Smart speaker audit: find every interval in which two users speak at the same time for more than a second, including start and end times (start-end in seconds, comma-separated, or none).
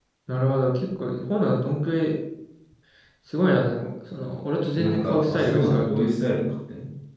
4.8-6.1